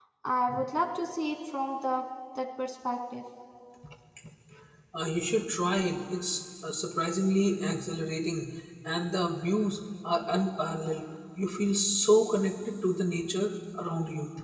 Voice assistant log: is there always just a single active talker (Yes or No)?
Yes